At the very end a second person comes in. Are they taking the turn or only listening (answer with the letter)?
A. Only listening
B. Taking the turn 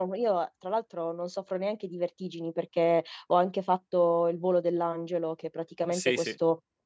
A